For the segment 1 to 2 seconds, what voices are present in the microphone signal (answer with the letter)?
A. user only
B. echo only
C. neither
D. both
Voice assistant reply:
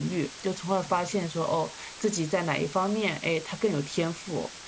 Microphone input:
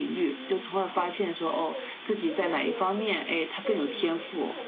D